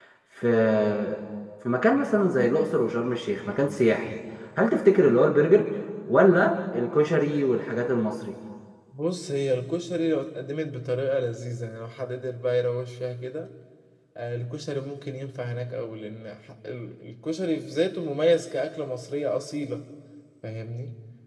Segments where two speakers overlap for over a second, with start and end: none

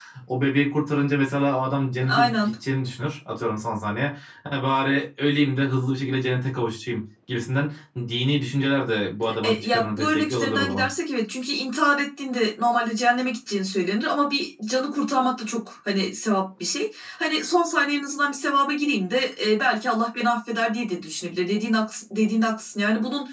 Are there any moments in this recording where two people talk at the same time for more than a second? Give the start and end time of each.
9.4-10.9

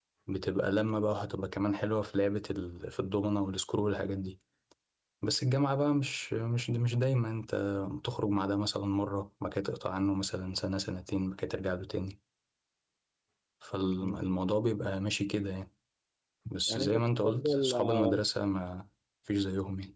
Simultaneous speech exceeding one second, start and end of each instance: 16.7-18.2

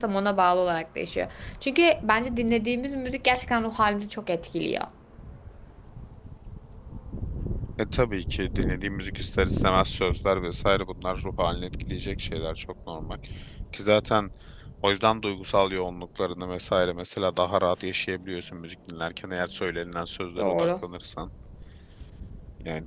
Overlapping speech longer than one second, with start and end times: none

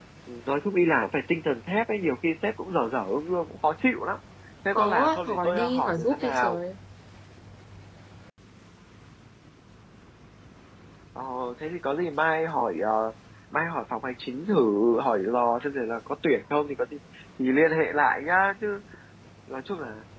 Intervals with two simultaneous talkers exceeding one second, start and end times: 4.7-6.6

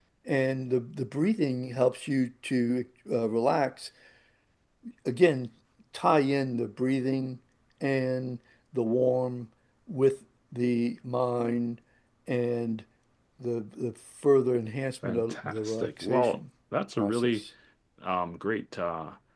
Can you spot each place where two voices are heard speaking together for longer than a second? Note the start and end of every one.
15.0-16.4

